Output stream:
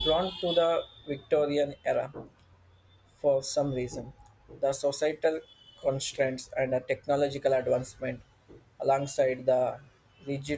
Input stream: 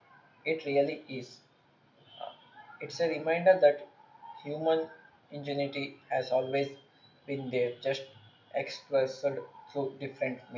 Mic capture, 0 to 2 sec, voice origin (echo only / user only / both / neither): user only